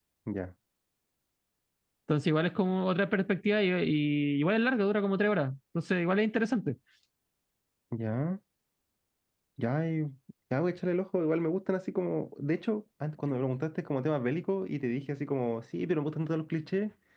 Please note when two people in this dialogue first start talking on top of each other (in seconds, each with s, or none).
none